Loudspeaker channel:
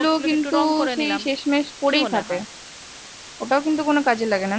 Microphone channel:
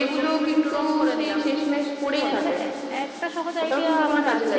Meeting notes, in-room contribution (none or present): present